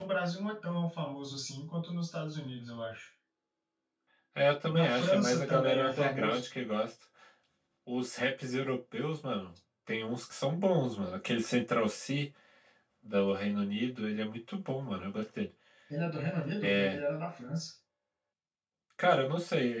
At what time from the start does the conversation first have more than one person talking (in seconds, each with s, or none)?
4.7 s